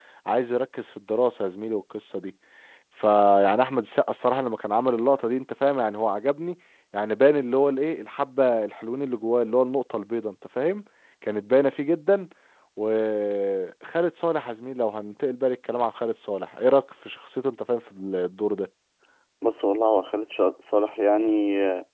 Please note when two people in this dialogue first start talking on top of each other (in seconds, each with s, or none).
none